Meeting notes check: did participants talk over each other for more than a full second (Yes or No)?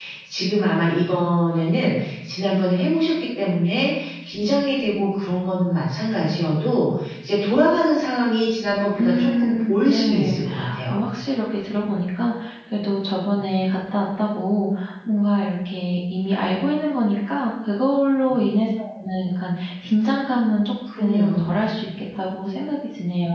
Yes